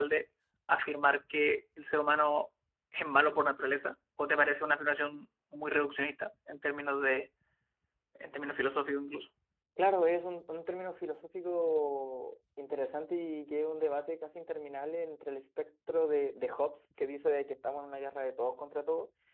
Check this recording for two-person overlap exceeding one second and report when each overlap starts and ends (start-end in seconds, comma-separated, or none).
none